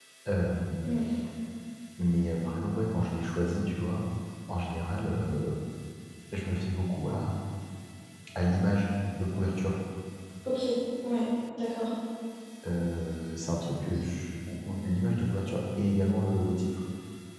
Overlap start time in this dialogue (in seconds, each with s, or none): none